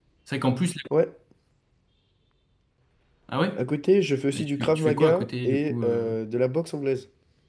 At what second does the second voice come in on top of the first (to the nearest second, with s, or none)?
4 s